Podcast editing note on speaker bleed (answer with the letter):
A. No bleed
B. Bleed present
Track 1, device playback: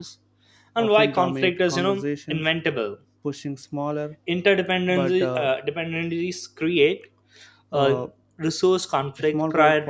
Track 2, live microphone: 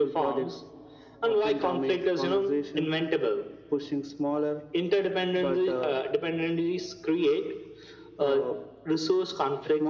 B